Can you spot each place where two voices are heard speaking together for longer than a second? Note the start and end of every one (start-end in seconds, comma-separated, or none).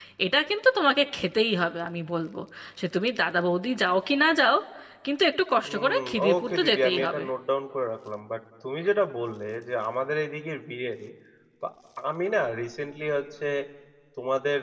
5.6-7.2